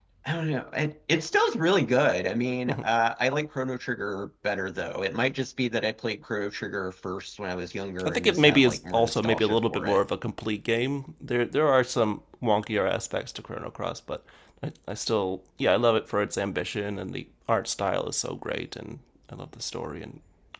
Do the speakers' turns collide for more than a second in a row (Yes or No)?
Yes